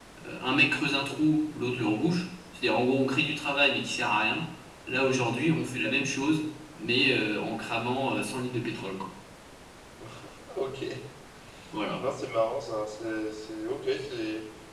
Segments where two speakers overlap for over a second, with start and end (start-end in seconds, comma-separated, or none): none